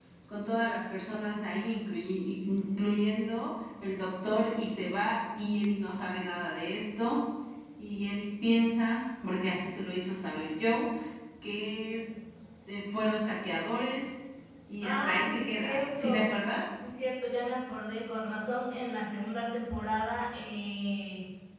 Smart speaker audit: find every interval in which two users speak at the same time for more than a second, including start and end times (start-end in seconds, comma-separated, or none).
14.8-16.3